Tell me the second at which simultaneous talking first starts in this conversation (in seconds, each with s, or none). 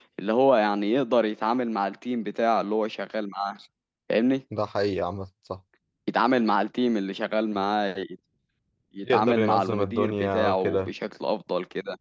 9.0 s